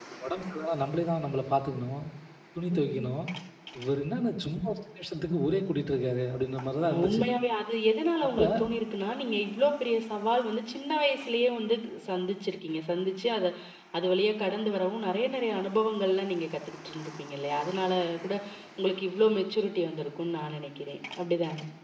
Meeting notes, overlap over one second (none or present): none